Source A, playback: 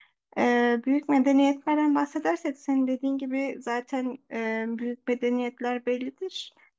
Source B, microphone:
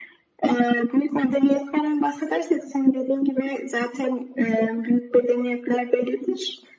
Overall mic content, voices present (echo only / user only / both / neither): echo only